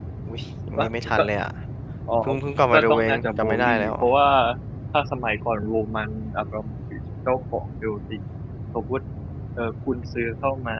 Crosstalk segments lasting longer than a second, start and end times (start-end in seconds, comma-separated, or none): 2.7-3.9